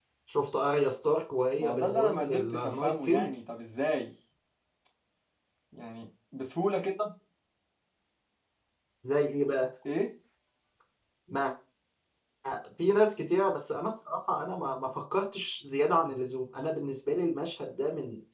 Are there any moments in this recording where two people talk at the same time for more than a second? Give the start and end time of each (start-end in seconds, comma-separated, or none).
1.6-3.3